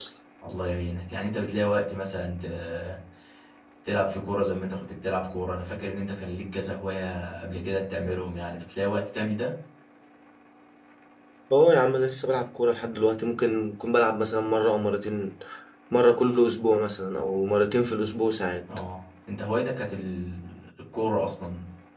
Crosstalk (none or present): none